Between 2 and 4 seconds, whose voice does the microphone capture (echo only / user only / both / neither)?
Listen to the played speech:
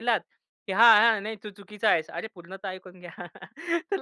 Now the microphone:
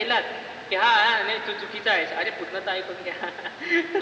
echo only